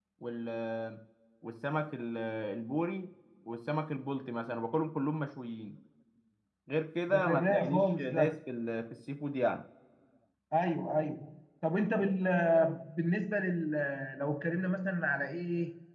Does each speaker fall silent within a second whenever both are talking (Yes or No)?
No